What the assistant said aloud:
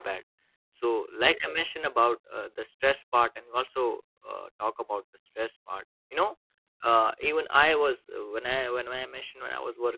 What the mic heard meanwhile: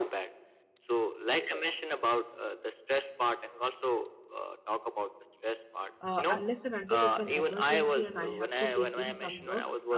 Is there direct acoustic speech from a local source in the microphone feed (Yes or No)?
Yes